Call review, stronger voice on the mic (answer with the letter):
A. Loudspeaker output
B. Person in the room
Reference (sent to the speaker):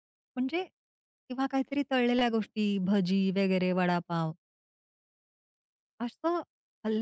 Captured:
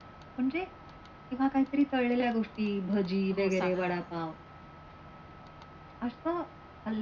A